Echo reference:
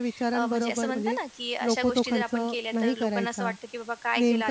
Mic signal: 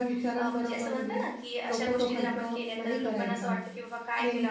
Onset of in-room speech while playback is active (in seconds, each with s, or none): none